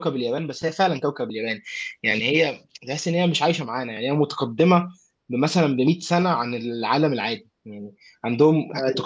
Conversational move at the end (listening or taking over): listening